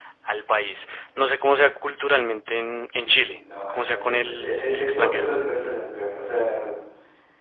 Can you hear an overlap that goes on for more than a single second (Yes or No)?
Yes